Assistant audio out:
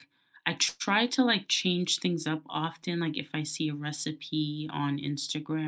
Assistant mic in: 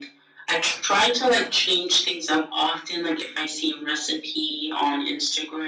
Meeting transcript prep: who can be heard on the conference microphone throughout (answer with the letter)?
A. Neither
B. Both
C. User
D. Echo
D